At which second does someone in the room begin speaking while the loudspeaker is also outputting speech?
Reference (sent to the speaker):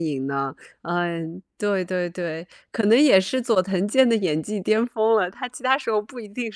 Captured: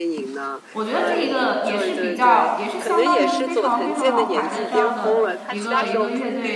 0.7 s

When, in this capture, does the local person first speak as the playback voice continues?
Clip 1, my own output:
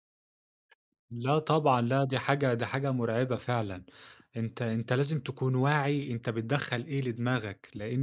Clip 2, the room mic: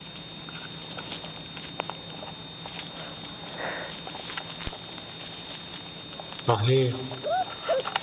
6.5 s

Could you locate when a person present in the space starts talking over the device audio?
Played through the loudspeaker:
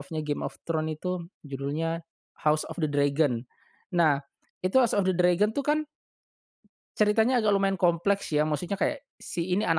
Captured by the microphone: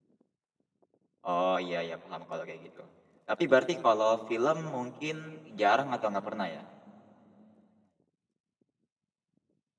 1.2 s

